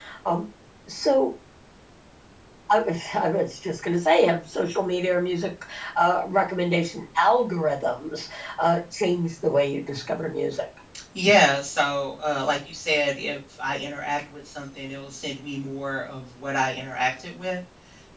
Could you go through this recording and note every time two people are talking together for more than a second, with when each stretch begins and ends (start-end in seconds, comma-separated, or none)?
none